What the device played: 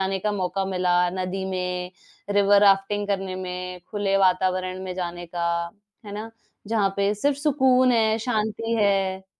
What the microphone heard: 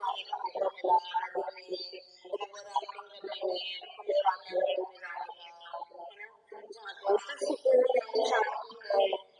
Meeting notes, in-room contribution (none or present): none